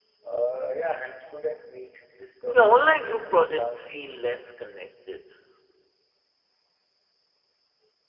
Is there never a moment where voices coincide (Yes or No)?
No